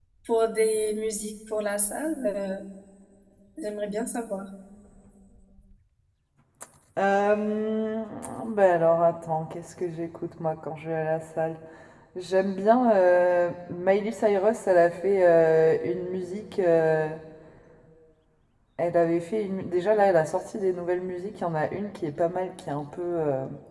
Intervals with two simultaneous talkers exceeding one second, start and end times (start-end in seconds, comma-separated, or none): none